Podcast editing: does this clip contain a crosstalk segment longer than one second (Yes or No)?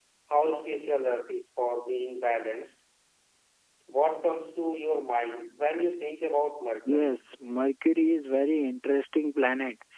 No